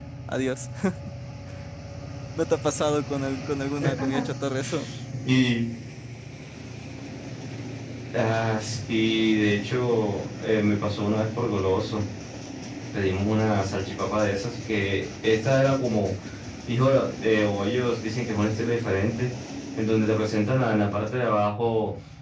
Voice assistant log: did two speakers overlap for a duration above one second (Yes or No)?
No